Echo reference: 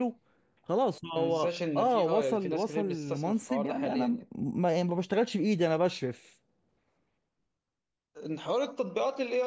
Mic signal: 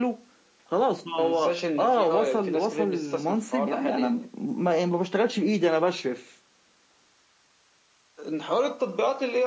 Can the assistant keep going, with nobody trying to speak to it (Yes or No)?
Yes